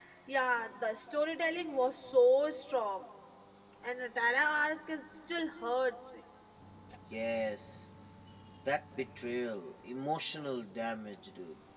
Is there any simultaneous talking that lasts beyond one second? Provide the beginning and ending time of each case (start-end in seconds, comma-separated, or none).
none